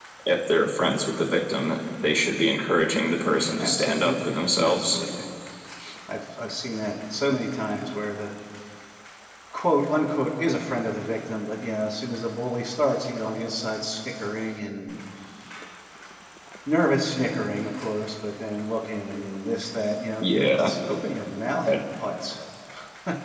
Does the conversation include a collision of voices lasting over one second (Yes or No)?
Yes